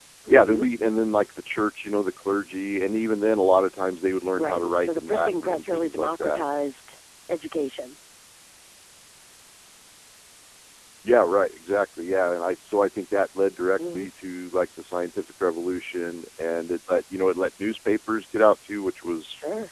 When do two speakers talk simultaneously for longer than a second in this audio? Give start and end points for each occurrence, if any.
4.3-6.4

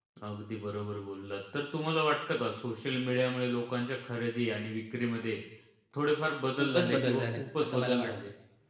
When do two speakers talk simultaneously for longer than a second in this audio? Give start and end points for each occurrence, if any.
6.6-8.1

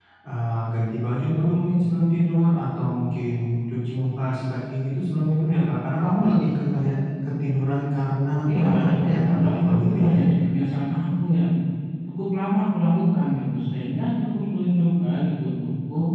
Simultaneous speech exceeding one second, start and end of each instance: 8.5-10.2

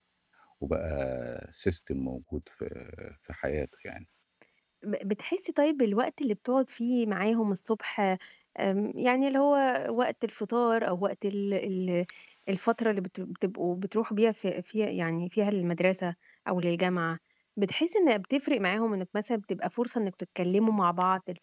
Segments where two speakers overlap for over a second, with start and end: none

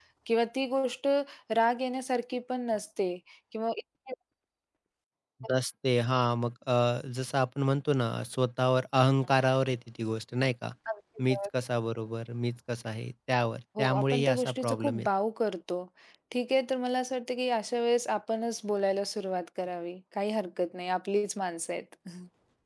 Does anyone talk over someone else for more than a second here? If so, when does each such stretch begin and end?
13.8-15.1

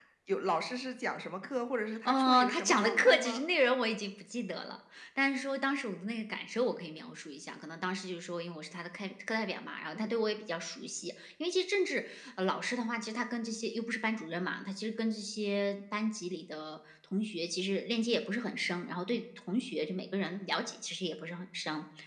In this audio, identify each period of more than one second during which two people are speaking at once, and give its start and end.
2.0-3.4

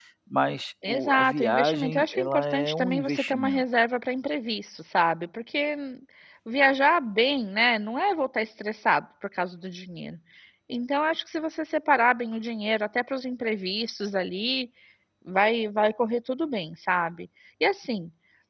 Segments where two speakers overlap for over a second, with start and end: 0.9-3.6

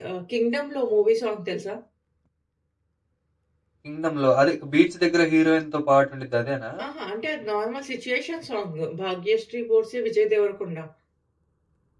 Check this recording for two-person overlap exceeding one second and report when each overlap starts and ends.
none

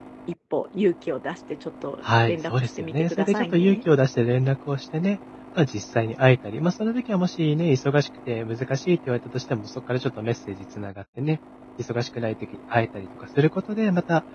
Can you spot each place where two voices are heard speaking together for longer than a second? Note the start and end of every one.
2.3-3.8

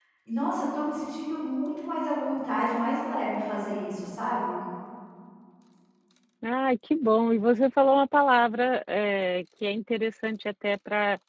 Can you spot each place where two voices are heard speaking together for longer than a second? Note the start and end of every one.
none

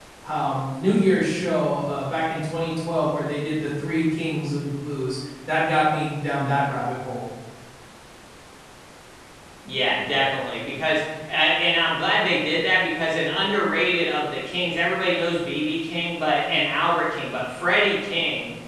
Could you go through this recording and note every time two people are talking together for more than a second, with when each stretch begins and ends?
none

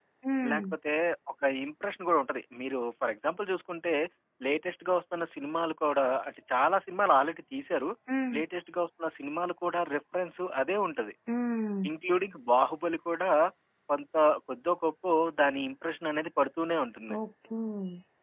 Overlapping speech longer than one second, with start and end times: none

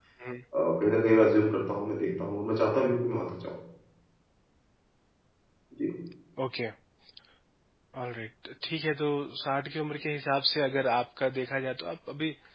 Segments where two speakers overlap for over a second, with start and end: none

